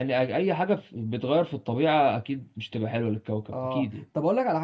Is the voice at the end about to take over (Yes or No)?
Yes